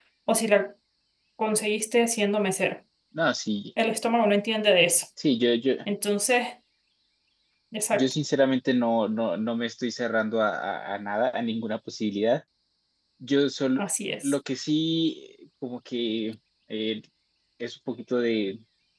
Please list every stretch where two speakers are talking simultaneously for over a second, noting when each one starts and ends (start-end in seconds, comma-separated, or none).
none